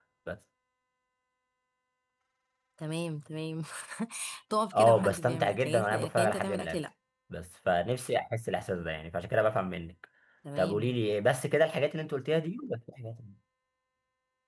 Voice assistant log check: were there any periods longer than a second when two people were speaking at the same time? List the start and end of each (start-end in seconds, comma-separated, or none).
4.7-6.8